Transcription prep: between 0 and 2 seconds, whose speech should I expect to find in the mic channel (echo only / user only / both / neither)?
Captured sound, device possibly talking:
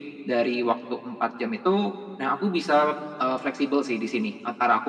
echo only